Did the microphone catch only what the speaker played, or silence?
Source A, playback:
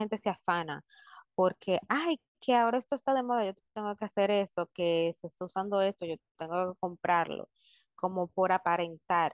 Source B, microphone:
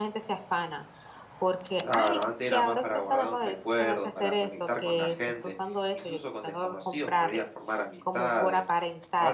No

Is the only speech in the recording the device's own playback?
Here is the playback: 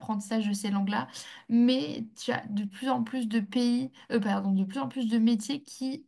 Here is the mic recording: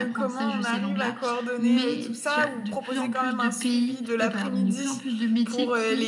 No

